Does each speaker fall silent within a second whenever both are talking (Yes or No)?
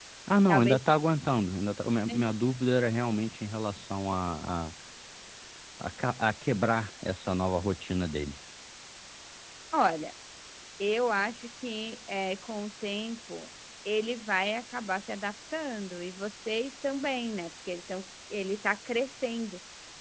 Yes